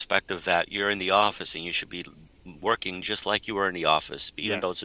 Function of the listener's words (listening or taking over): listening